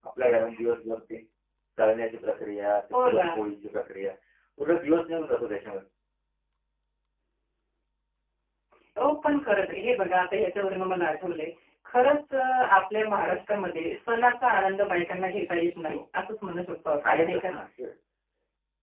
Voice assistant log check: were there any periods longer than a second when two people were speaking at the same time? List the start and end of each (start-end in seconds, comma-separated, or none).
none